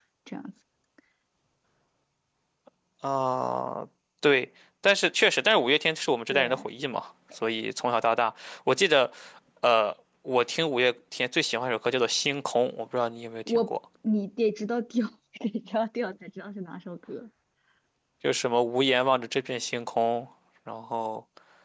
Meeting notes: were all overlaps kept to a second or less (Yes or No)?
Yes